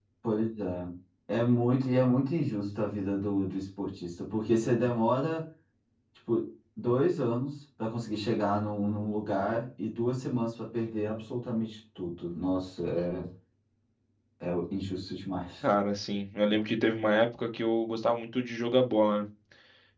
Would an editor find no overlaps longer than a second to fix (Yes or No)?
Yes